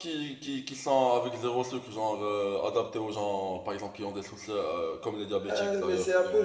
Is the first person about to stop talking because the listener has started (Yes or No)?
Yes